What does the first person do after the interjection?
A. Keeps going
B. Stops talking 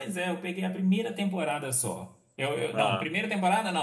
A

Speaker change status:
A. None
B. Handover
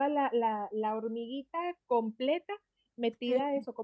A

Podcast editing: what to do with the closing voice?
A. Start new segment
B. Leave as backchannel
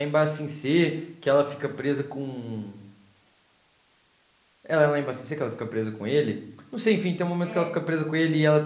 B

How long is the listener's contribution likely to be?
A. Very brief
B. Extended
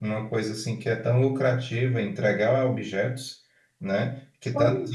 A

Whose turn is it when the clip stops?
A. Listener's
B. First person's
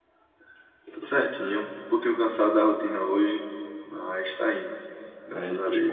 A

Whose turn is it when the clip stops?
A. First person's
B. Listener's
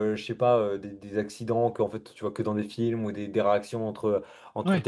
A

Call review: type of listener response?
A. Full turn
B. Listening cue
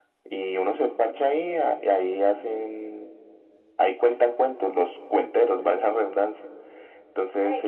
A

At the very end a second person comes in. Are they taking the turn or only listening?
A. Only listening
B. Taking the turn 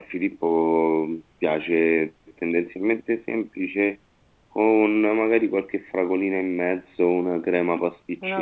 B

